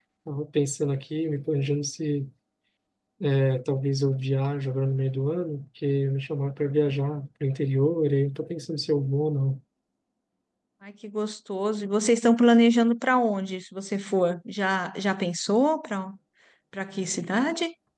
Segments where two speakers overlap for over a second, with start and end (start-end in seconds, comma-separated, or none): none